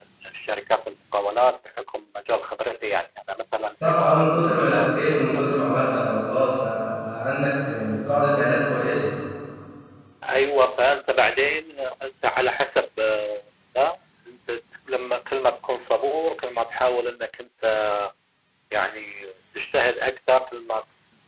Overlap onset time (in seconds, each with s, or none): 3.8 s